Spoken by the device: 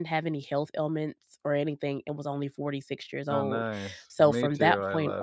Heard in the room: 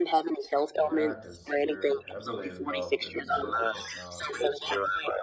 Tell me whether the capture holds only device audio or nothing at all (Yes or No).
No